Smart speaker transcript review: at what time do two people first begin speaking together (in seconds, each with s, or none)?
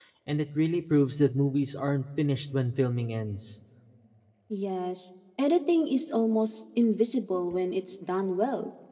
none